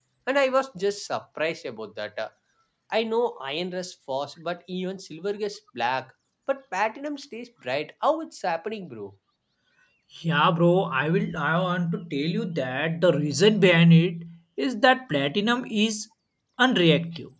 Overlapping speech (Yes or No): No